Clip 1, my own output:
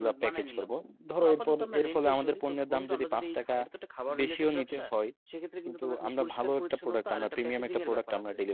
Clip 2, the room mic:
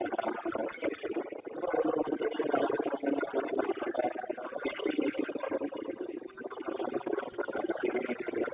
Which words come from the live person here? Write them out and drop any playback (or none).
none